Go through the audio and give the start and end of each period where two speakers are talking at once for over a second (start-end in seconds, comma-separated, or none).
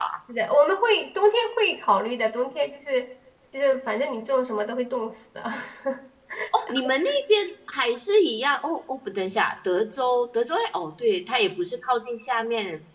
none